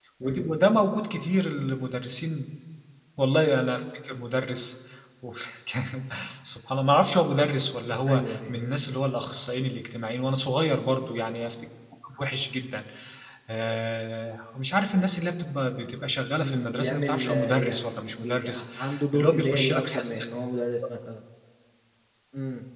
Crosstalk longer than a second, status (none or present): present